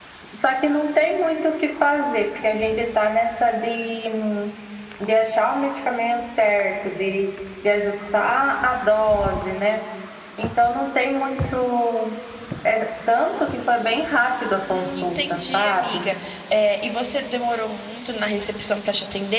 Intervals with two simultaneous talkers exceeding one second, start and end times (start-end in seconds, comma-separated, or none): 14.7-16.1